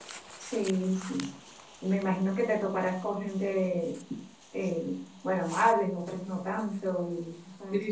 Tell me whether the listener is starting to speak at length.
Yes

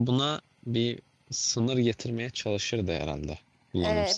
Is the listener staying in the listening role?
No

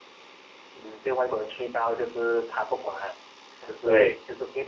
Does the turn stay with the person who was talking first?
Yes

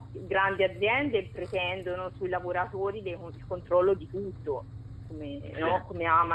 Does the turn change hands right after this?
No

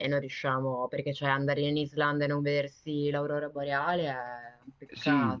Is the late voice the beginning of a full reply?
Yes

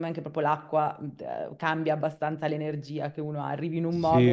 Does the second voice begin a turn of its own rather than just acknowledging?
Yes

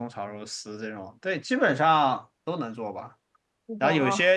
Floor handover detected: No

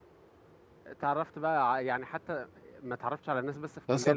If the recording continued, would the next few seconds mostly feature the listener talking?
Yes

